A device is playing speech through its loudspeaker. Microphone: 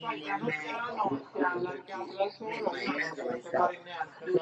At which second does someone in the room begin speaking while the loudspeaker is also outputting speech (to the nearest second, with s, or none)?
none